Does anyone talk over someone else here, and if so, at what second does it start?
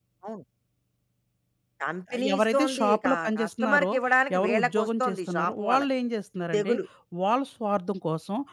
2.3 s

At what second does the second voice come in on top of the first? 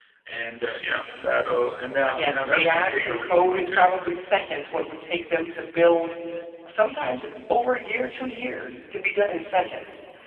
2.1 s

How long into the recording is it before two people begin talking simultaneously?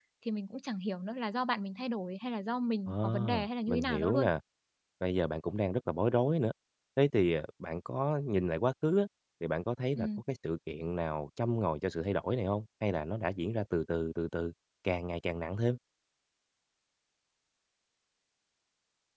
2.9 s

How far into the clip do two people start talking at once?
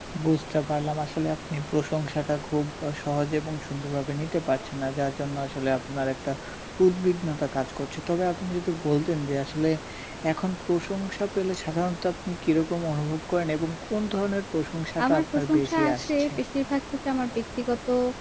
15.0 s

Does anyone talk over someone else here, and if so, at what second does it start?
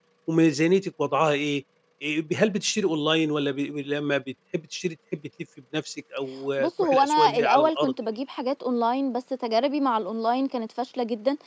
6.6 s

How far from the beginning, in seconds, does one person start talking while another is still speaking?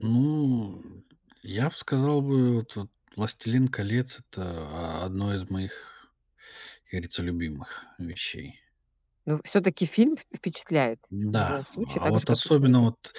11.1 s

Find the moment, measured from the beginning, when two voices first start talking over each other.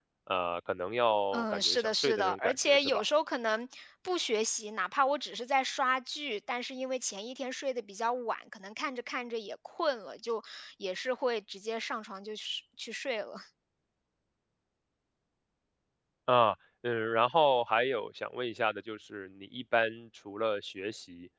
1.3 s

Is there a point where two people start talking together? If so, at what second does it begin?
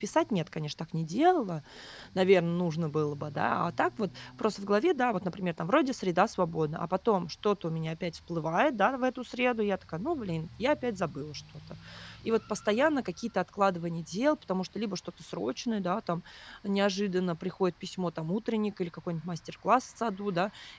none

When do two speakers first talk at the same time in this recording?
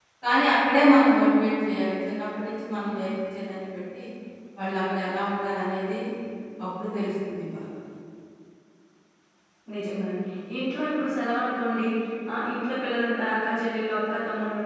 none

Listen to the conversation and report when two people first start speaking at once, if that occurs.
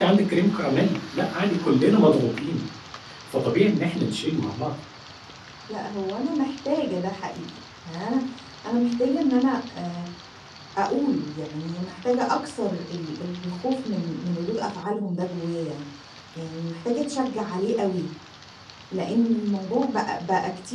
none

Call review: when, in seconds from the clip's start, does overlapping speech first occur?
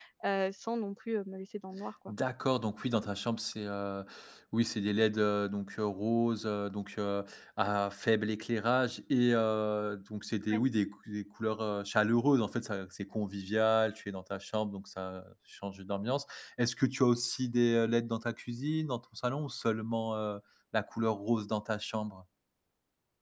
none

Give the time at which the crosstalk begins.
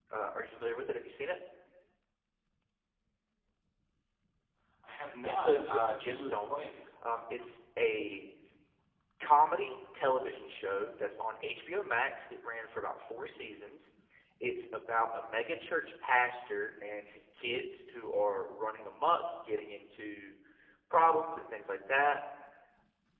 5.2 s

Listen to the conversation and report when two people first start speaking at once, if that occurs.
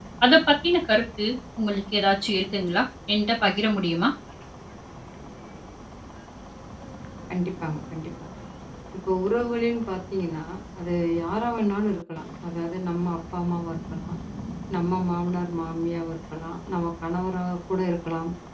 none

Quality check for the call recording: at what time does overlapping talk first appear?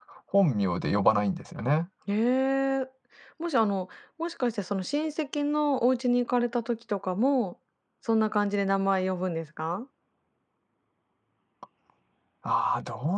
none

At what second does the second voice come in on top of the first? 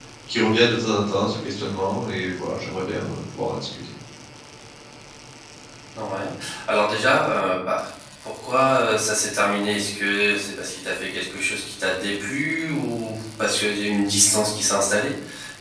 none

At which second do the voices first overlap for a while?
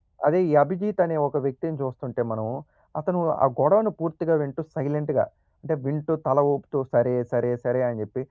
none

